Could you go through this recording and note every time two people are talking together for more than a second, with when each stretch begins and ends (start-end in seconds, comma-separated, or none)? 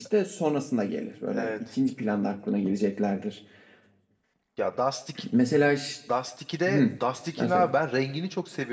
none